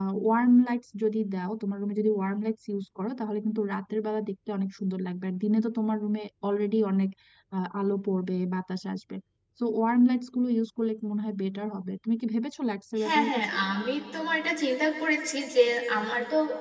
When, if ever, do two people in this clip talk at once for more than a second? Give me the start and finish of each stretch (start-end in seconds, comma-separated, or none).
none